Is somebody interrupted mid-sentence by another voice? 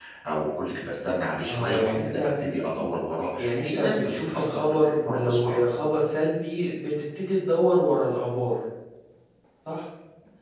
Yes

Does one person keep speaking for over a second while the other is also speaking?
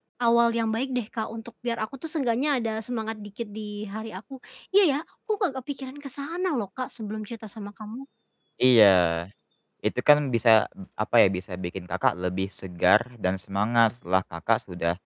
No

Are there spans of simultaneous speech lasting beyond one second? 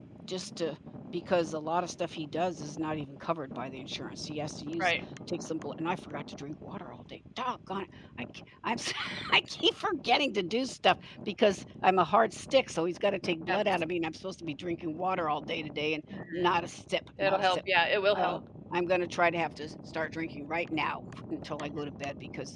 No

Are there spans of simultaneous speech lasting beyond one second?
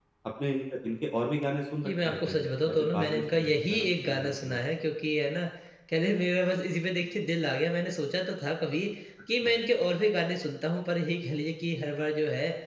Yes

